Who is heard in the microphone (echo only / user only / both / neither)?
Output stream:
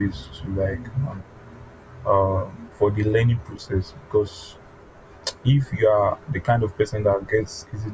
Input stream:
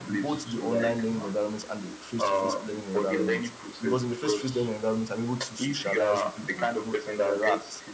both